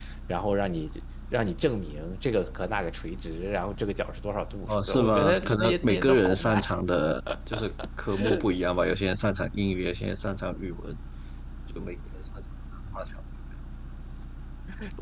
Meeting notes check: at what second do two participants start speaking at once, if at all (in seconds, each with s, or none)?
4.7 s